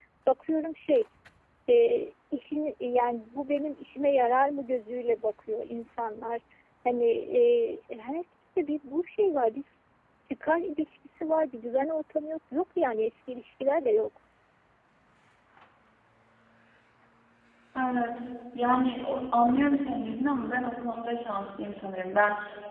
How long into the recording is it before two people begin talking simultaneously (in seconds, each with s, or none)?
none